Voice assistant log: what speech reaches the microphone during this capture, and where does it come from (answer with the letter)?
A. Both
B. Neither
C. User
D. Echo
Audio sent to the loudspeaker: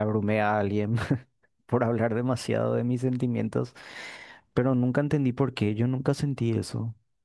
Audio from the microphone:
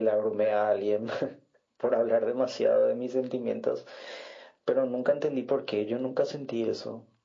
D